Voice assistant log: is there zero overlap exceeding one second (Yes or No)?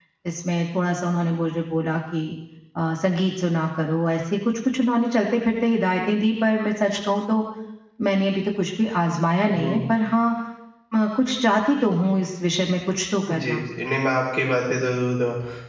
Yes